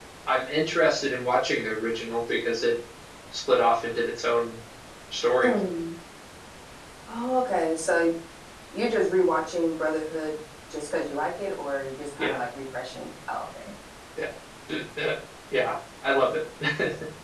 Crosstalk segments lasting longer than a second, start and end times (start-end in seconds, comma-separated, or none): none